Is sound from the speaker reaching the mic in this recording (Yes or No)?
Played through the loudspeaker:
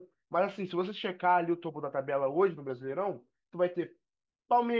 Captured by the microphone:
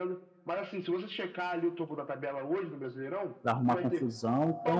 Yes